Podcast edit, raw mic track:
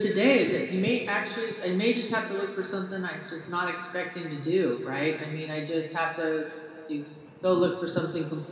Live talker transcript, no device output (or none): none